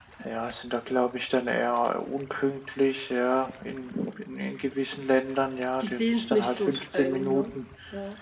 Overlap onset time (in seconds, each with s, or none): 5.8 s